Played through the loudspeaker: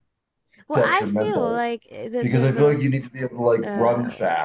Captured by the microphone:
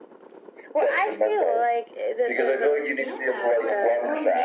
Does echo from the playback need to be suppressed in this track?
Yes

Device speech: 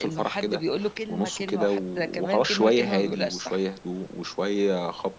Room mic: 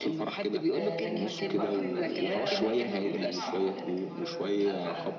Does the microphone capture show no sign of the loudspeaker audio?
No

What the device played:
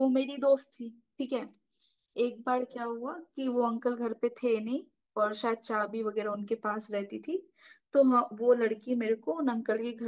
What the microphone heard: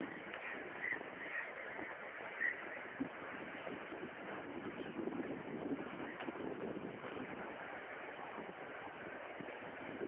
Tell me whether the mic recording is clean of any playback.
Yes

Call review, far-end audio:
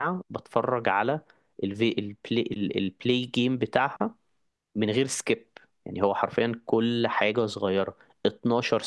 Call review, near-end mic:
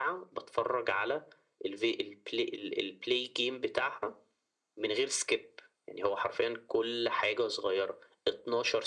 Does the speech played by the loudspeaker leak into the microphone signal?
Yes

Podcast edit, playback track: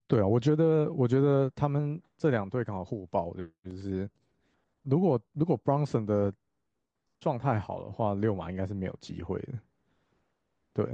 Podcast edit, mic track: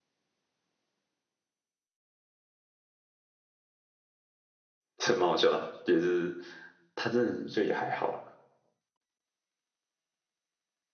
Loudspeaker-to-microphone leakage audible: No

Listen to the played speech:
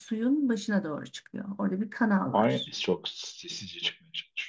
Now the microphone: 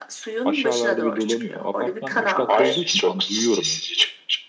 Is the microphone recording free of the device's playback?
No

